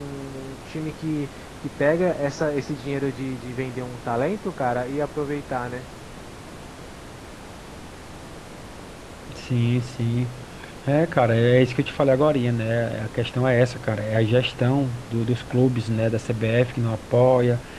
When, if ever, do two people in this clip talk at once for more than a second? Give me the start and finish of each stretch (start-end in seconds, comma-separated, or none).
none